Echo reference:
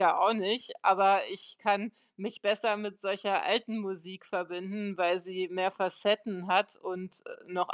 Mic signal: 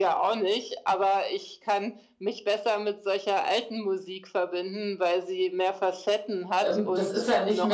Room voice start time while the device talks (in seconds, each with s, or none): 6.6 s